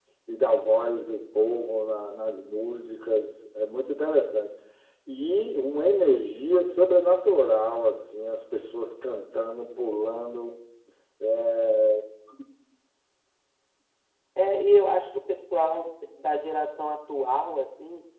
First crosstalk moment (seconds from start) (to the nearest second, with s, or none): none